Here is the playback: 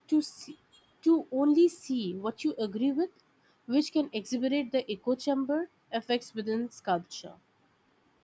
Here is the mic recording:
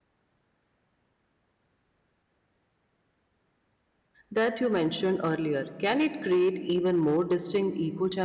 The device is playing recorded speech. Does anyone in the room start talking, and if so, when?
4.3 s

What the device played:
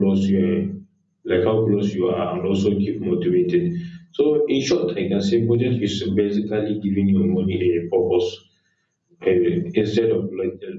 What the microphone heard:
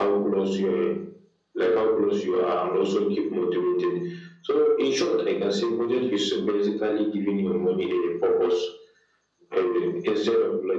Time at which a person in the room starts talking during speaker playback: none

